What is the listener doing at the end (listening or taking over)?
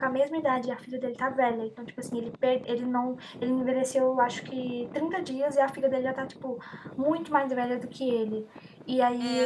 taking over